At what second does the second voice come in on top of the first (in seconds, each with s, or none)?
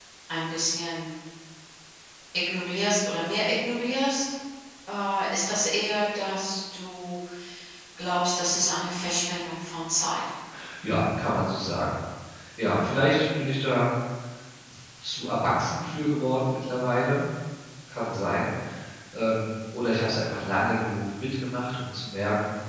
none